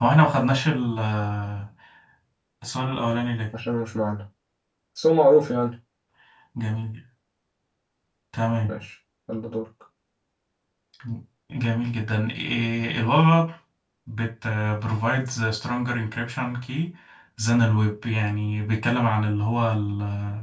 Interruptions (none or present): none